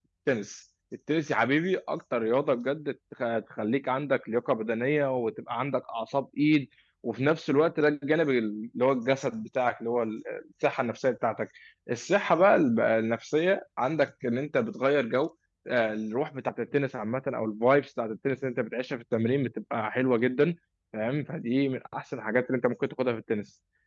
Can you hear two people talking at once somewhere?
No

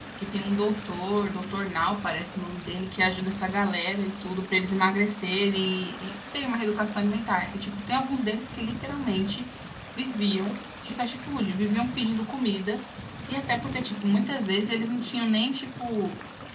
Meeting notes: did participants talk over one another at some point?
No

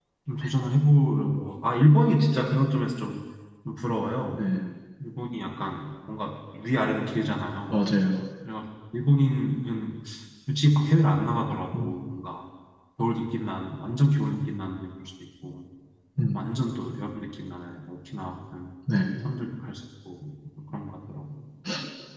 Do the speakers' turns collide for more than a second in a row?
No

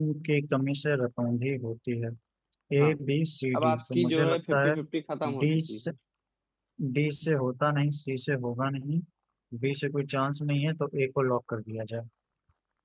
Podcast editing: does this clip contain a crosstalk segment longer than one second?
Yes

